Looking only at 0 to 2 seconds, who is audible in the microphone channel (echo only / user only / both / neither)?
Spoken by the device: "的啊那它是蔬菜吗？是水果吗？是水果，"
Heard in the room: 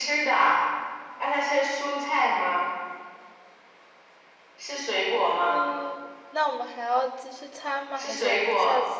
echo only